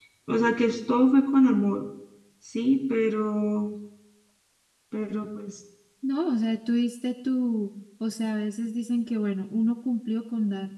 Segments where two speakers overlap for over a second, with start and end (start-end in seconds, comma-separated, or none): none